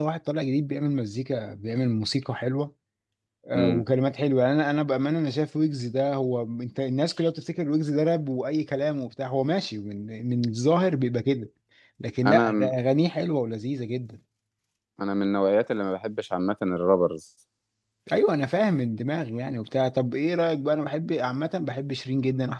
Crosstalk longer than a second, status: none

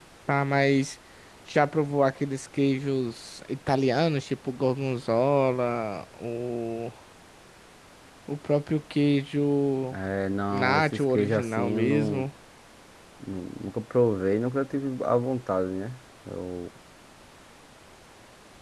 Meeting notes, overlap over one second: present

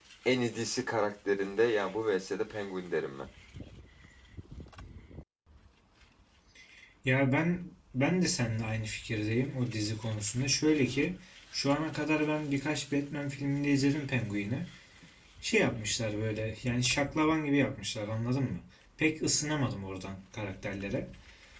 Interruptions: none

